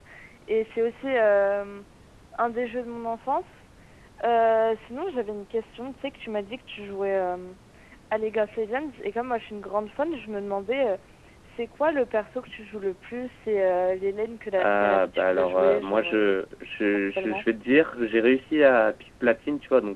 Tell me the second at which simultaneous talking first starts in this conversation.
14.6 s

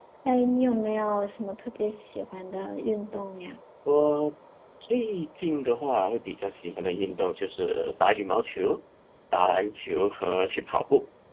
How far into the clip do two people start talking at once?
none

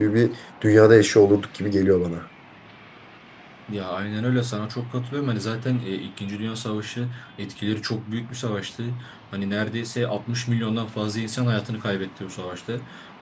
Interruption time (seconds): none

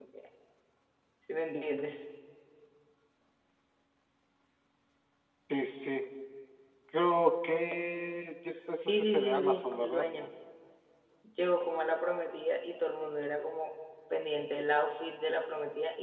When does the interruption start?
8.8 s

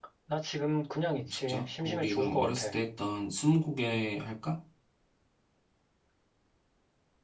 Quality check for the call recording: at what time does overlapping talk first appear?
1.2 s

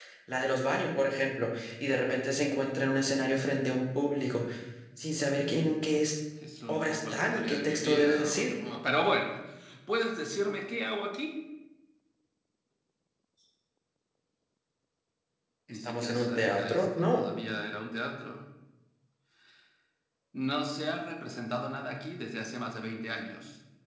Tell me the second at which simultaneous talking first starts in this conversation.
6.7 s

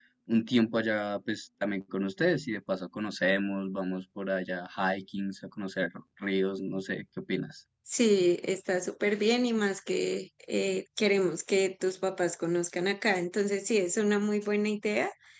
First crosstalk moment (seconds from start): none

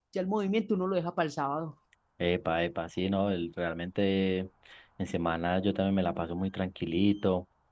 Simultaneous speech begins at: none

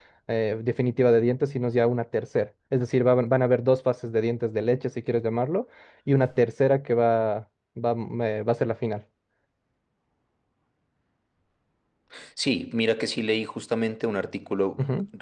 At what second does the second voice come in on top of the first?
none

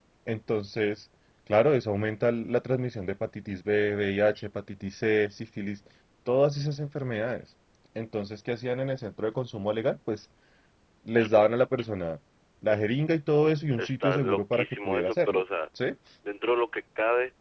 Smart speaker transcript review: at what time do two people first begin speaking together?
13.8 s

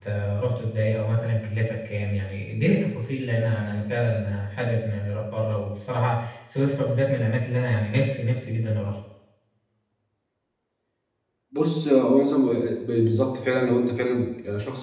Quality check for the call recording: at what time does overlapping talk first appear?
none

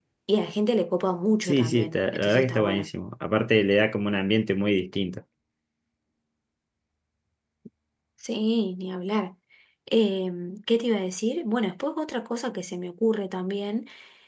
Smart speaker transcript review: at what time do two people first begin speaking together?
1.4 s

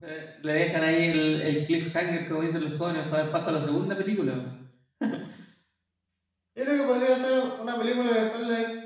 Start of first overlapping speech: none

